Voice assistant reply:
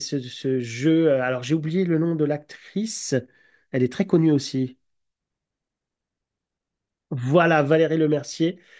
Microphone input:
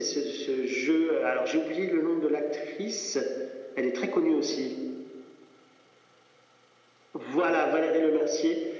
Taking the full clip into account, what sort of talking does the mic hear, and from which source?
echo only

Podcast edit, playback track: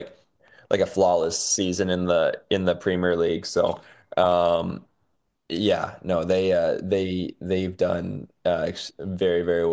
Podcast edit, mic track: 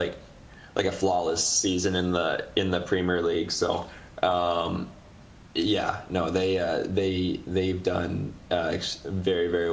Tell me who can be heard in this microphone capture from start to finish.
echo only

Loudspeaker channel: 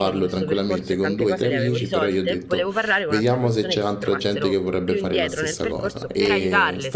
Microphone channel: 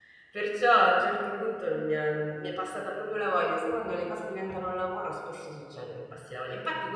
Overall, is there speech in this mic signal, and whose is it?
user only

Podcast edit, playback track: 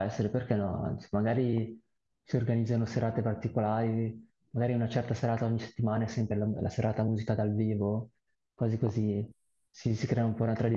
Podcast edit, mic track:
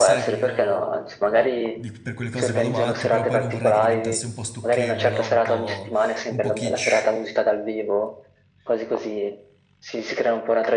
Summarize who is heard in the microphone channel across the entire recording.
both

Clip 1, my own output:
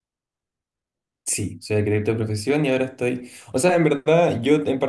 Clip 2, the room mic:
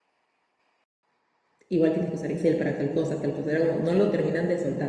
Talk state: user only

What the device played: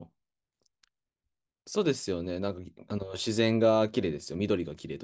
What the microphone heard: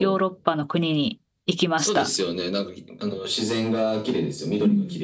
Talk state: both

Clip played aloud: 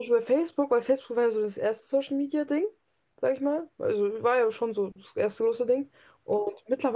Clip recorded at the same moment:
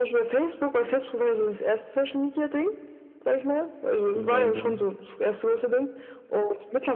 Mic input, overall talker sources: both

